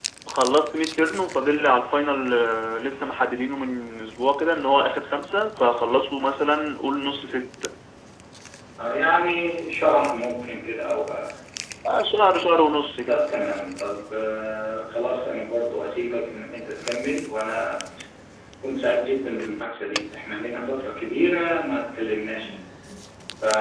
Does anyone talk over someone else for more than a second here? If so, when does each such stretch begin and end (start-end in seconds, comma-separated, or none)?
none